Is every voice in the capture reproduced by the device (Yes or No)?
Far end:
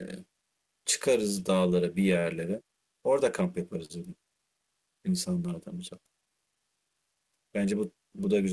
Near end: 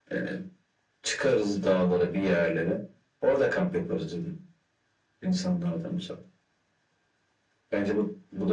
Yes